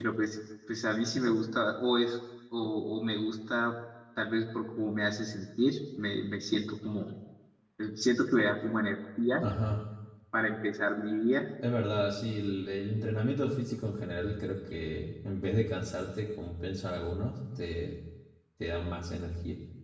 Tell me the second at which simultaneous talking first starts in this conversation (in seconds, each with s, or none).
none